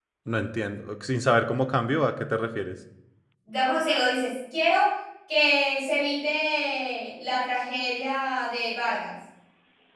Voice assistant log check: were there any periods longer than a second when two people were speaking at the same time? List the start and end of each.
none

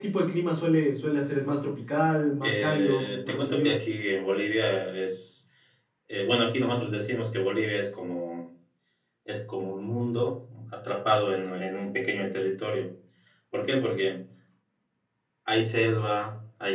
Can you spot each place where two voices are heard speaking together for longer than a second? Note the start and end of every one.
2.4-3.8

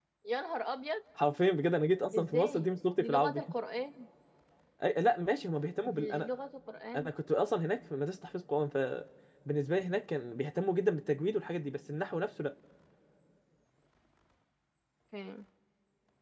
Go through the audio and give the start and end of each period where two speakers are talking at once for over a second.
2.2-3.4

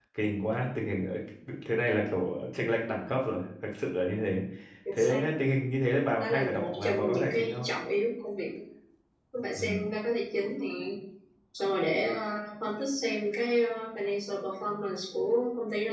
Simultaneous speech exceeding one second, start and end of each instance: 6.2-7.7

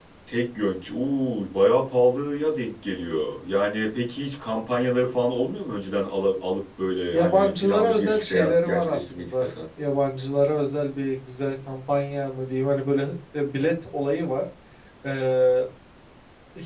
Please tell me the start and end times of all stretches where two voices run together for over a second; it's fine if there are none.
7.1-9.5

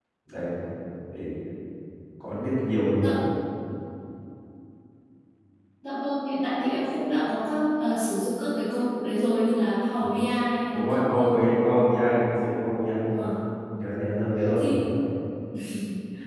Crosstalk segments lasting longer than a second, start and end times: 10.7-11.9

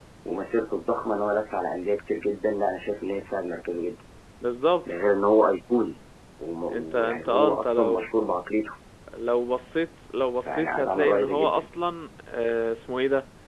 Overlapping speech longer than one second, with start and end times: 6.7-8.1, 10.4-11.7

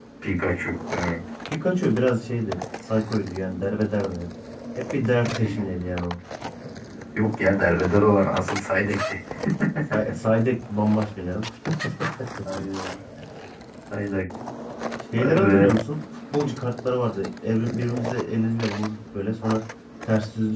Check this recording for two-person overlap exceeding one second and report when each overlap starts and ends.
none

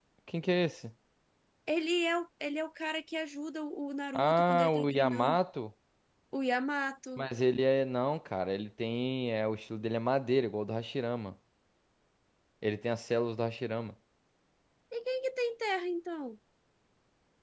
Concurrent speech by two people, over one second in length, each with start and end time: 4.1-5.4

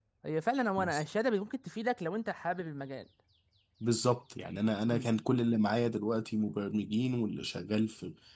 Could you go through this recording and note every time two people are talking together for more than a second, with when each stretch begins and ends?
none

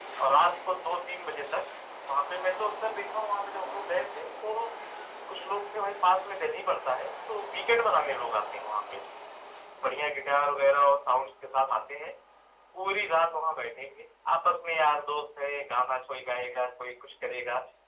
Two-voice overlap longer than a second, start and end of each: none

